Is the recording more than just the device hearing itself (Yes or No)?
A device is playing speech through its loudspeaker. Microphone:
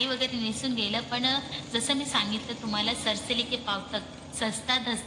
No